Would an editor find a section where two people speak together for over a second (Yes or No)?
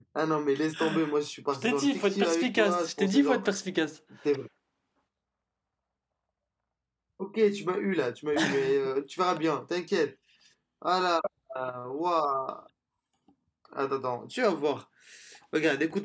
Yes